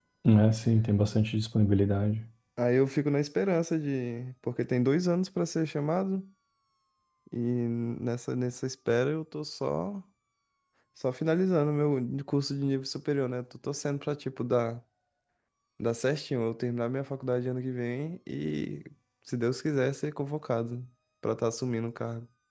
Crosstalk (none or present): none